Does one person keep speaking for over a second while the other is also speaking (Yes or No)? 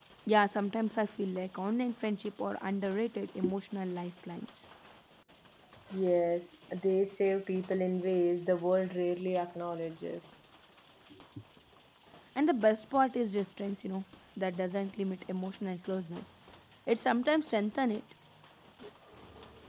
No